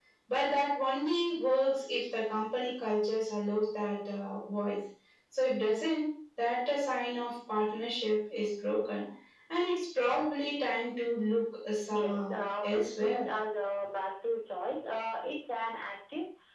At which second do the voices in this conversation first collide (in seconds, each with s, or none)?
11.9 s